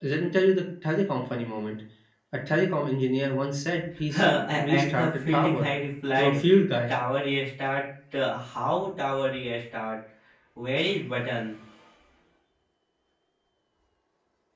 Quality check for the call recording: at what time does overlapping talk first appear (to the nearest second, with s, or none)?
4 s